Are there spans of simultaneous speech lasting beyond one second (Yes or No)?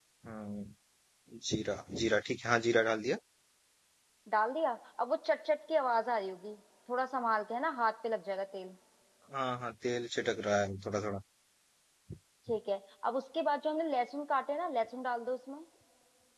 No